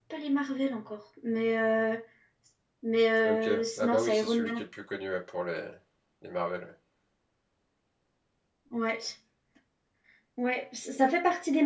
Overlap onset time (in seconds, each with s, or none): 3.2 s